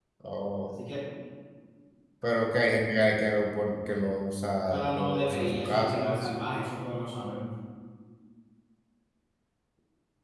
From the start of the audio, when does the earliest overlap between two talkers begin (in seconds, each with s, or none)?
4.7 s